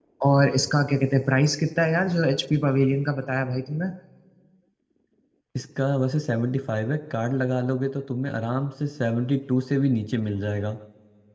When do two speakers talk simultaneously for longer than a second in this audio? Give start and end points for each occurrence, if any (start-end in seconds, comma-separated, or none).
none